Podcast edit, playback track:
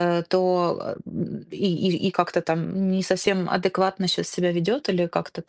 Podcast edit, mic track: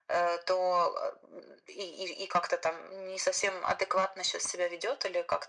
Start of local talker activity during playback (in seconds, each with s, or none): none